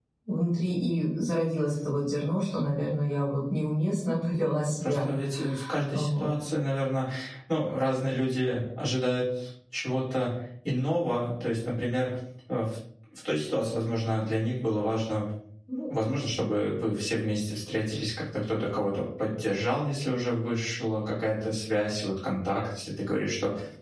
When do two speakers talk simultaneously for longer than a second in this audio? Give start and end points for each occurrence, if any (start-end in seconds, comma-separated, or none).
none